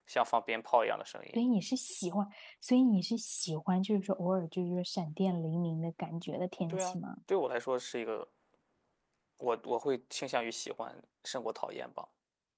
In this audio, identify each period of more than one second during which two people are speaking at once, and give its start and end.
none

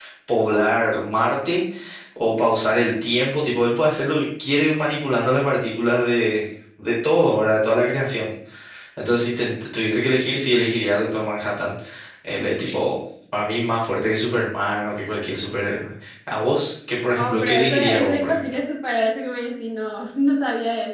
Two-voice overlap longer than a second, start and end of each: 17.2-18.4

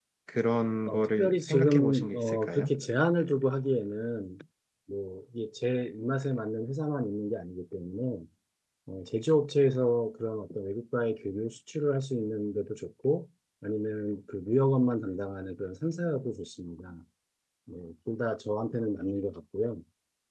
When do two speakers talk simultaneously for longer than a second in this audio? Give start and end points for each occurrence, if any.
0.8-2.7

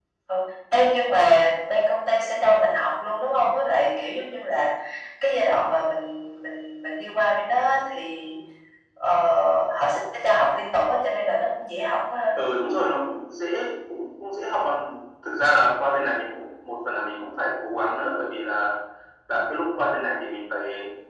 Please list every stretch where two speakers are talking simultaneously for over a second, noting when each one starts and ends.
none

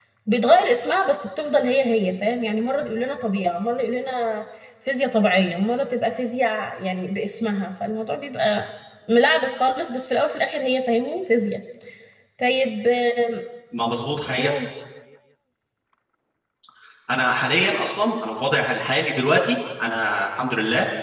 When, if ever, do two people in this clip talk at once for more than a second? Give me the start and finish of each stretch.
none

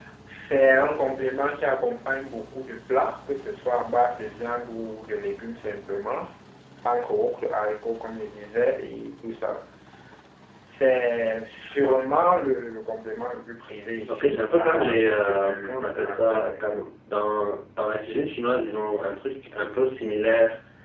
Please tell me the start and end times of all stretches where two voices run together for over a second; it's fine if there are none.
14.1-16.9

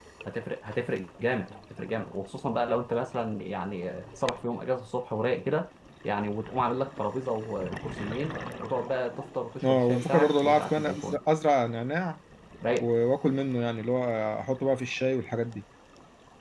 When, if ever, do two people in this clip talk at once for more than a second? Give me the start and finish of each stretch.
9.6-11.2

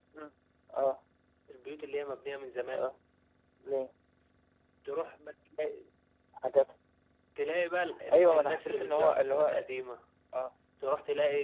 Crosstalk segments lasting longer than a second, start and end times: 8.1-9.6

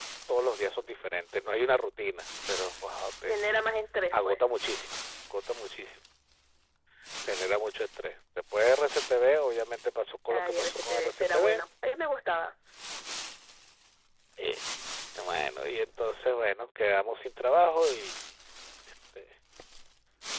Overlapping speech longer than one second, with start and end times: 10.3-11.6

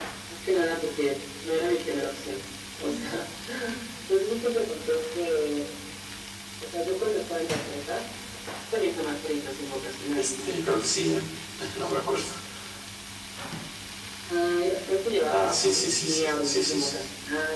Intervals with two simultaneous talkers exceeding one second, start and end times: 15.3-17.0

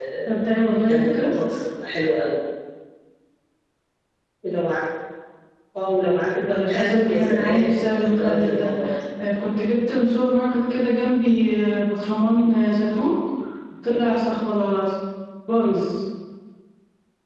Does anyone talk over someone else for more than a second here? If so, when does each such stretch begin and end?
6.5-8.7

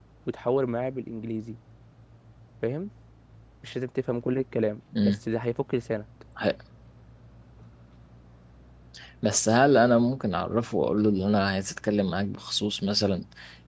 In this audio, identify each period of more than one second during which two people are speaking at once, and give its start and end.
none

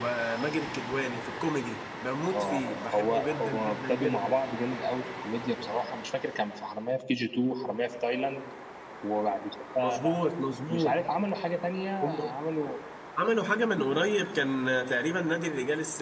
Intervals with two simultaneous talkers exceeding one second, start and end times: 2.2-4.3

